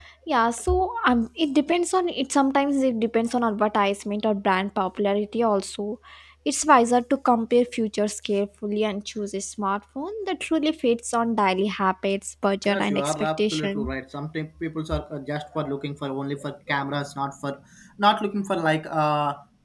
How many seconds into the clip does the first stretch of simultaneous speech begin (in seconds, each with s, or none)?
12.6 s